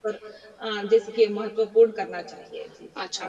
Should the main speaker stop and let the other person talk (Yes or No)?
Yes